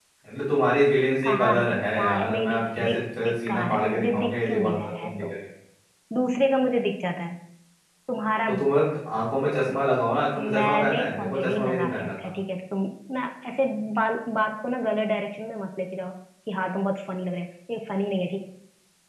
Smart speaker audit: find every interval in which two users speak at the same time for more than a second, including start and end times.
1.2-5.3, 10.3-12.1

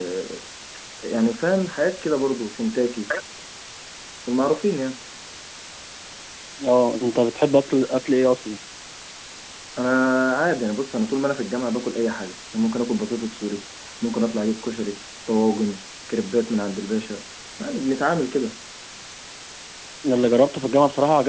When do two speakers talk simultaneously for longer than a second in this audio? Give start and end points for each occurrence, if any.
none

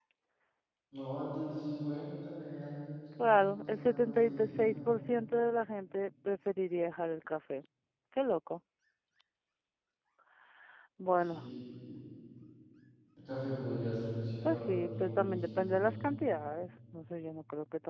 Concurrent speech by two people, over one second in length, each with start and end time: 3.2-4.8, 14.4-16.1

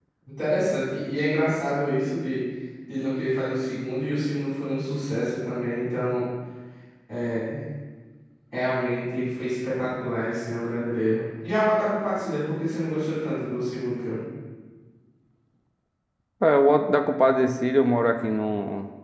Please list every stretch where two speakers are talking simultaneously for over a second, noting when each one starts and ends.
none

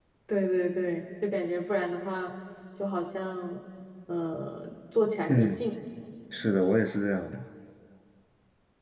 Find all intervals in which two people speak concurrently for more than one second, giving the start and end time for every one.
none

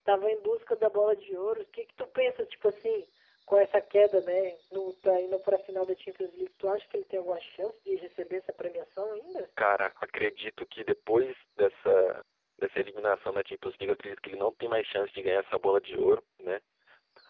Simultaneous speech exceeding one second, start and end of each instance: none

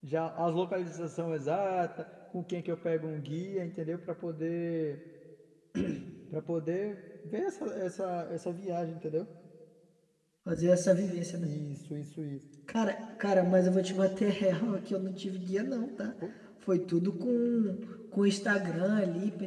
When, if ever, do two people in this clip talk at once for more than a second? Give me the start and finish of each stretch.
none

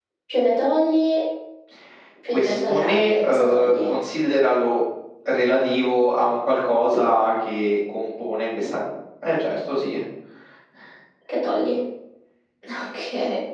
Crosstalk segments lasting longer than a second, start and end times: 2.3-3.9

